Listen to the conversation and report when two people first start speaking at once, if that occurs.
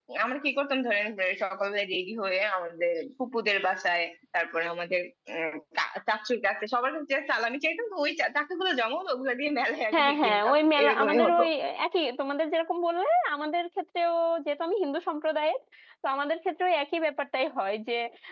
10 s

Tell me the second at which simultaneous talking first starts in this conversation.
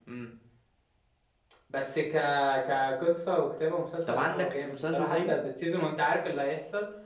4 s

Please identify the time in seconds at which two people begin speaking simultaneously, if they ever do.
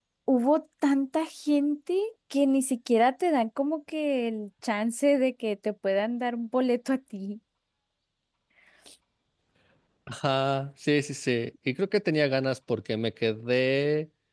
none

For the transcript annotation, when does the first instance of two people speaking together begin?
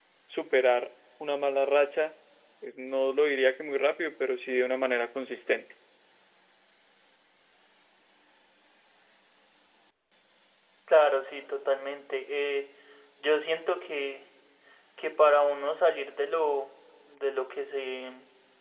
none

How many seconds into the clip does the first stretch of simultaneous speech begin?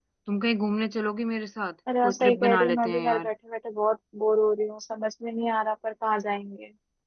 2 s

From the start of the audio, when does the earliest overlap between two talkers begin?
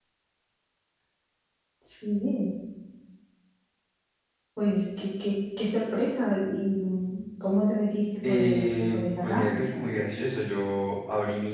8 s

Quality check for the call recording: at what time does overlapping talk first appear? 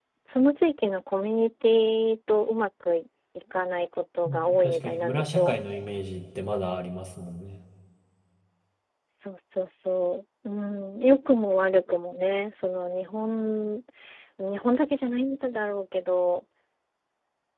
4 s

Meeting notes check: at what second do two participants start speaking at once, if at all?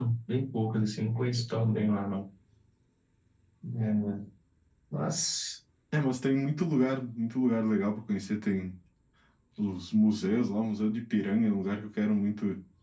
none

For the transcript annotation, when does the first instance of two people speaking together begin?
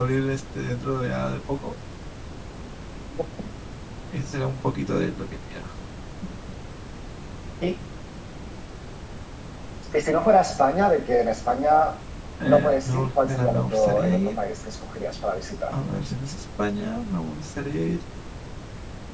12 s

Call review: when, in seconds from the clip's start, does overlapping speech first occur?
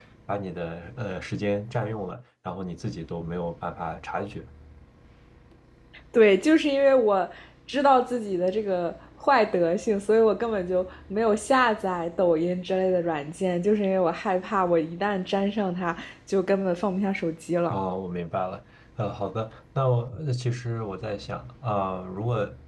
none

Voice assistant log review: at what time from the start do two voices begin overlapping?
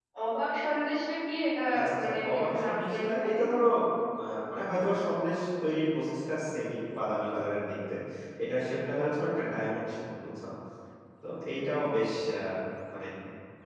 2 s

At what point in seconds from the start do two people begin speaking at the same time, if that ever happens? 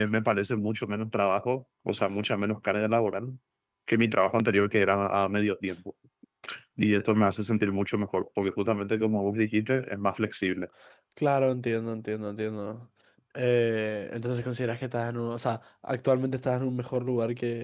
none

